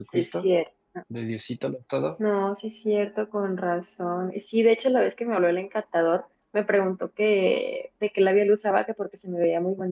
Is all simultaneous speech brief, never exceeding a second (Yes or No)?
Yes